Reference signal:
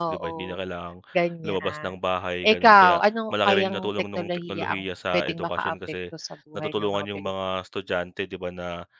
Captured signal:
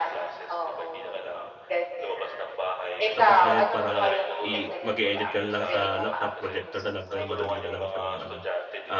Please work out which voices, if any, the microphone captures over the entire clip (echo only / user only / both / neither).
both